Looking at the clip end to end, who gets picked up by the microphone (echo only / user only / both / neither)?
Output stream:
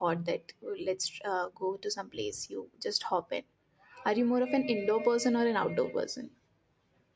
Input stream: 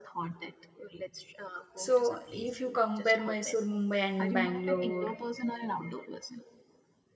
both